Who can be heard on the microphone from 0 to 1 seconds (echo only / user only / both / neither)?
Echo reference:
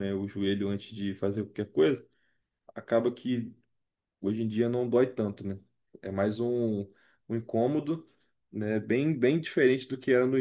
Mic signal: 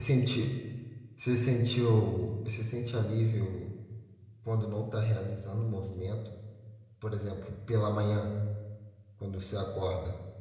user only